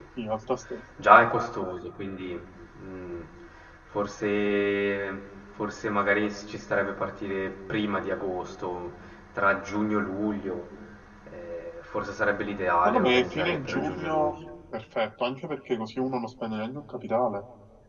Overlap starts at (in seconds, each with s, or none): 12.8 s